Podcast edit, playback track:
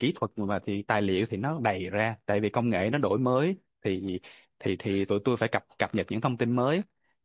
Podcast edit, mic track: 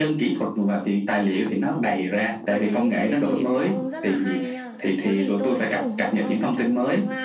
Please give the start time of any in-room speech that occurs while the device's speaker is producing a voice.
2 s

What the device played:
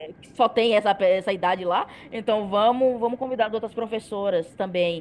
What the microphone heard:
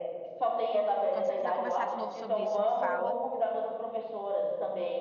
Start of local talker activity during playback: 1 s

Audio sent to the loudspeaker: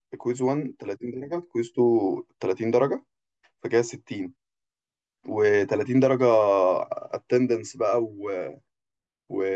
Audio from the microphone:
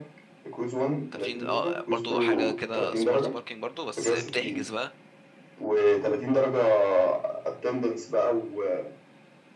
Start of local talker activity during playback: 1 s

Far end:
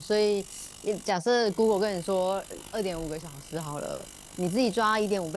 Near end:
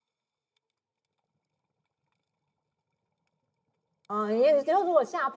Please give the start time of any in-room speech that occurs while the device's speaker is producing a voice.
4 s

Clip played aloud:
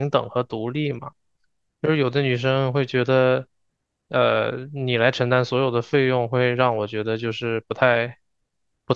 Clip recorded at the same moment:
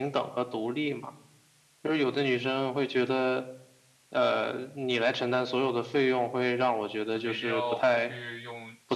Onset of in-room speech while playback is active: 7 s

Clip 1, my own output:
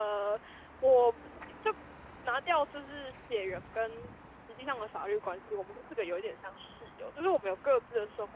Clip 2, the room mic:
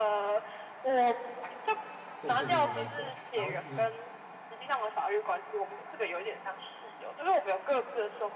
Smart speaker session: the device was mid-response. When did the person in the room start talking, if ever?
2 s

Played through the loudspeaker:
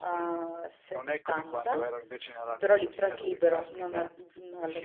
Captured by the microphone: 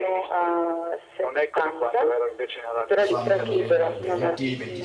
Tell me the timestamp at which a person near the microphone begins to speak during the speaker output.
3 s

